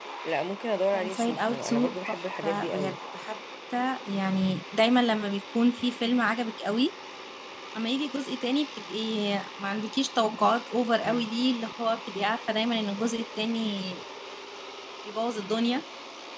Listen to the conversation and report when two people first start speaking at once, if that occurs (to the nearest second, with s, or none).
1 s